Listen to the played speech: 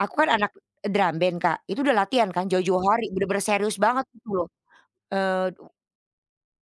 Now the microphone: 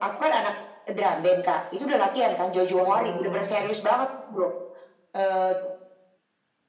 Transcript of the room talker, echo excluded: Oke.

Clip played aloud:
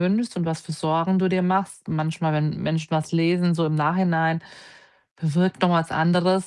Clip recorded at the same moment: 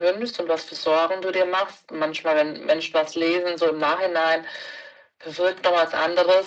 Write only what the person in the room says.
none

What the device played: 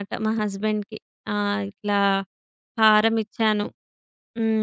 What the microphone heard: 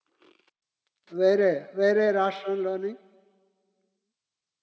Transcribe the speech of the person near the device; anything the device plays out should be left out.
వేరే, వేరే రాష్ట్రంలోని

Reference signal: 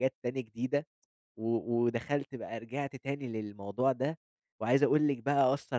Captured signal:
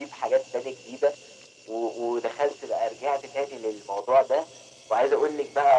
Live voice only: none

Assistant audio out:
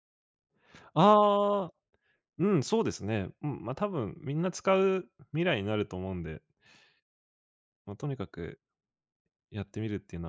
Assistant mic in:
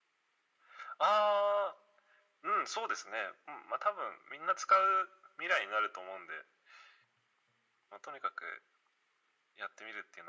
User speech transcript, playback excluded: none

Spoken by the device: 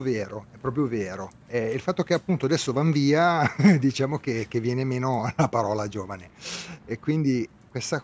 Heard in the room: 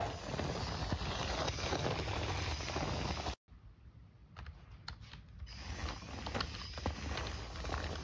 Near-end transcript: none

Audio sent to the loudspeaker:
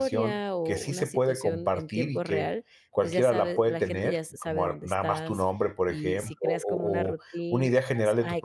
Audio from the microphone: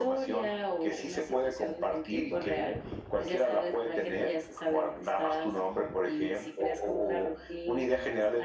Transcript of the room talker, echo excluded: none

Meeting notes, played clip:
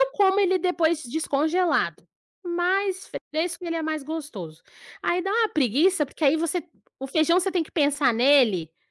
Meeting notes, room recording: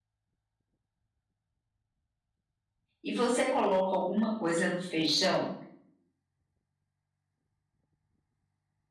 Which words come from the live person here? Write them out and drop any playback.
E você coloca alguma coisa no feijão

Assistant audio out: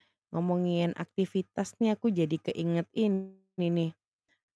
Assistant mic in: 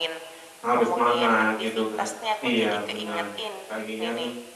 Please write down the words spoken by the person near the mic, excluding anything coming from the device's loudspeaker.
Harus semangat gitu kan. Iya, bener apa lagi kan

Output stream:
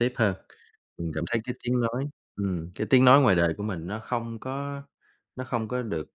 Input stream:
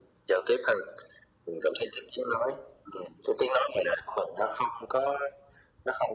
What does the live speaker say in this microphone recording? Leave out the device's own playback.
none

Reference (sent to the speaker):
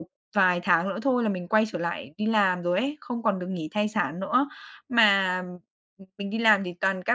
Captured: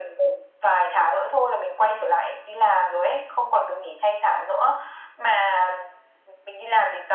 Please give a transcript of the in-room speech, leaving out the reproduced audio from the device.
none

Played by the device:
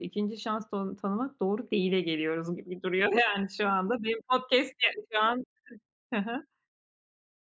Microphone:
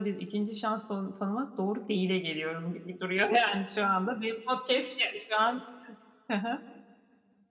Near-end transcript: none

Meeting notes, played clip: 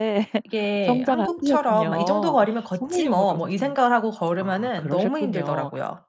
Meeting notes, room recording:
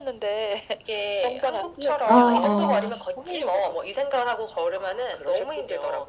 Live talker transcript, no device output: 아 아.

